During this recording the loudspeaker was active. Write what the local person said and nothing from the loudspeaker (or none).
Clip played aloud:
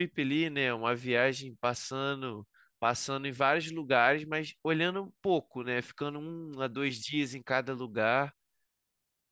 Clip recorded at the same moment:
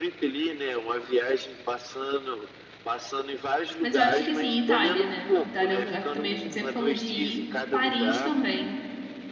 Mas eu acho que assim, Itália, né? Itália é um lugar que também a gente sempre falou de ir. Paris também.